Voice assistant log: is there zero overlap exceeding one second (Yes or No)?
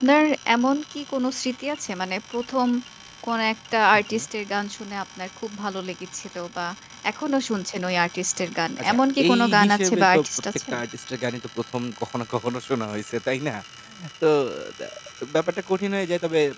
No